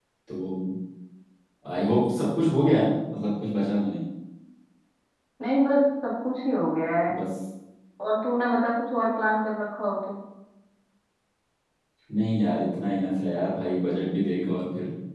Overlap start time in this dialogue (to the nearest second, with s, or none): none